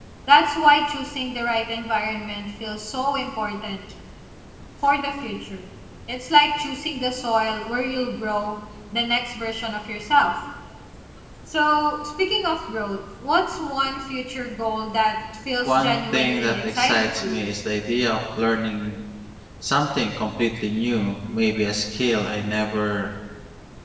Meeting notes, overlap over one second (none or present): present